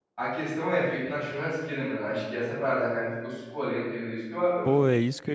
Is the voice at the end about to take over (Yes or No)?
Yes